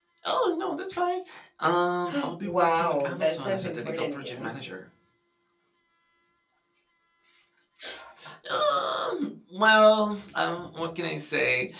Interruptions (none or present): present